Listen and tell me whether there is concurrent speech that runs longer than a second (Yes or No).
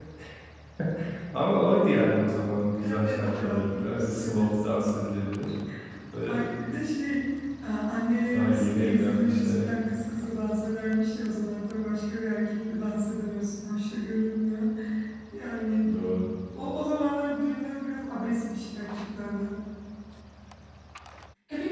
Yes